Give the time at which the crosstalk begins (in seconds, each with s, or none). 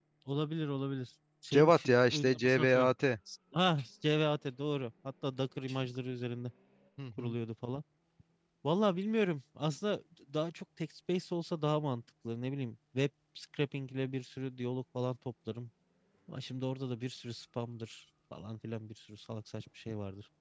1.5 s